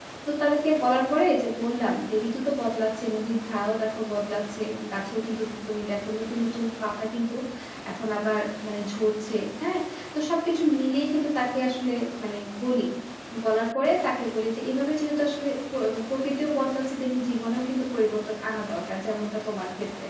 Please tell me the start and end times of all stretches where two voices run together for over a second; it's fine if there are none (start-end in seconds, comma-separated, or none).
none